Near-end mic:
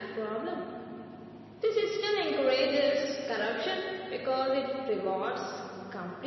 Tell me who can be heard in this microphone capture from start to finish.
echo only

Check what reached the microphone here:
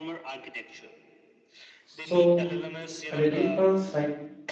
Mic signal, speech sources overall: both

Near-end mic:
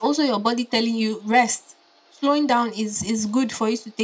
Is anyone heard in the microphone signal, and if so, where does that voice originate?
echo only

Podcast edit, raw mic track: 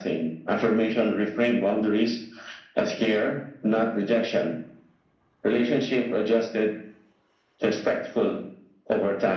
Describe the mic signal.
echo only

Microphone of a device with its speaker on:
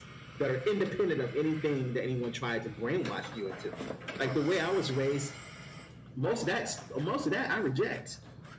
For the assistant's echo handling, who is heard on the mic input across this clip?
echo only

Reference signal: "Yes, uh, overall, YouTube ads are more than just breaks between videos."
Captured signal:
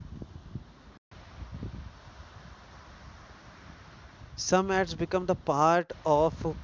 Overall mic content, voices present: user only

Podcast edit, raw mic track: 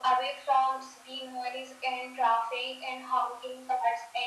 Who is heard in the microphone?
echo only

